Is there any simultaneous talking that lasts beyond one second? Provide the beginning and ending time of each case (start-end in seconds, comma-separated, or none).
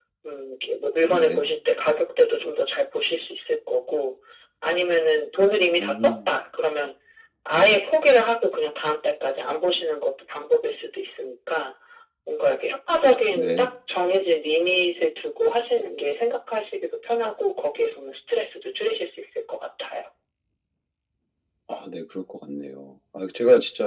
none